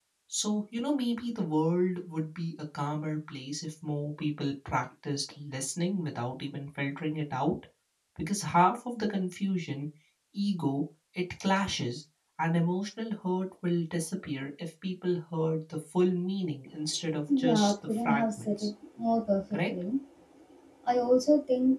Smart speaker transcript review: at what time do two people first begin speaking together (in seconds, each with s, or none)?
17.4 s